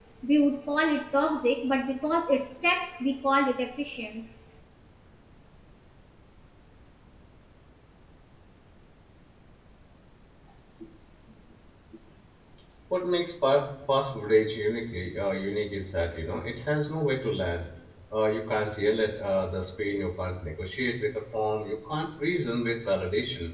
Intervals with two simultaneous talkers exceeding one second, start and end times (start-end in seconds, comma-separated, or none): none